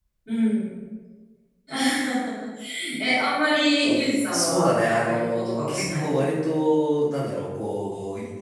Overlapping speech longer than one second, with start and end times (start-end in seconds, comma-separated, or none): 4.3-6.2